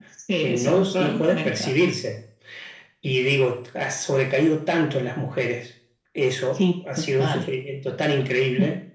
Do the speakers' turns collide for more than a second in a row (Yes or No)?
Yes